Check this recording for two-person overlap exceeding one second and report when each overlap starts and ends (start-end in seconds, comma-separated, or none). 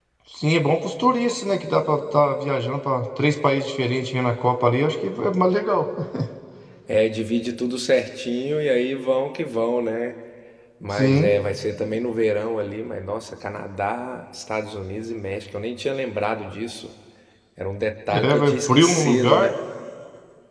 18.2-19.5